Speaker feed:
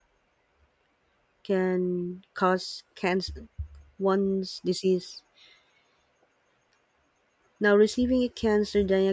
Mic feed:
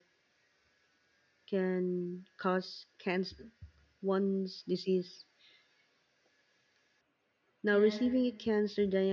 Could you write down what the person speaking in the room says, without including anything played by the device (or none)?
yes,